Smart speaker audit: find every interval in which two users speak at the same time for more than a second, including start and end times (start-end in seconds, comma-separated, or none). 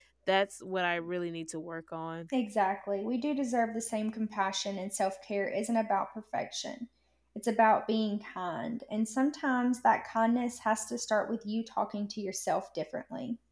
none